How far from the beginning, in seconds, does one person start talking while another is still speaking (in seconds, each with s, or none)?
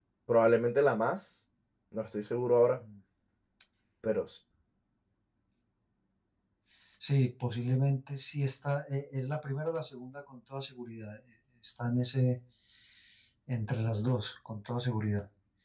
none